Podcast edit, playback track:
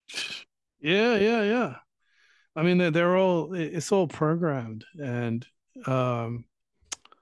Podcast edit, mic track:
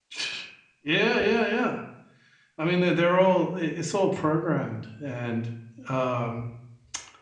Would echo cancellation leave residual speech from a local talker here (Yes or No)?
No